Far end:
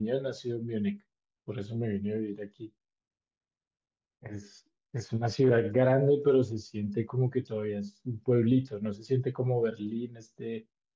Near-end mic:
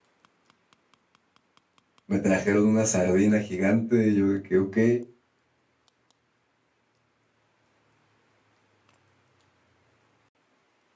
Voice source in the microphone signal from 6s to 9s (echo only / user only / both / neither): neither